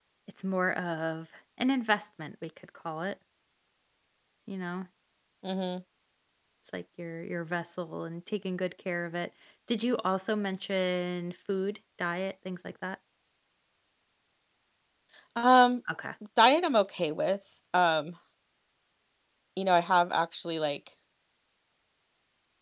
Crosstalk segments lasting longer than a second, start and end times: none

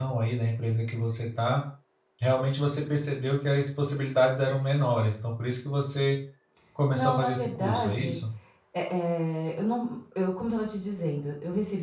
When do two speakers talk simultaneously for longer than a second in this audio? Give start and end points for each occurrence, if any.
6.9-8.2

